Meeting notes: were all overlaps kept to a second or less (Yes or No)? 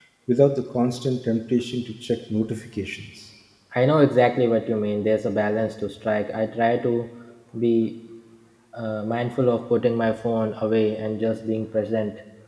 Yes